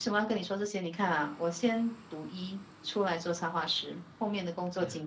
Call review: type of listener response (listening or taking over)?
listening